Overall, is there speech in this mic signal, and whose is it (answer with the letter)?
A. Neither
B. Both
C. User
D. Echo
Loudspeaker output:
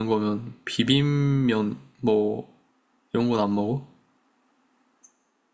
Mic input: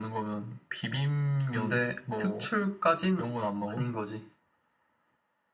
B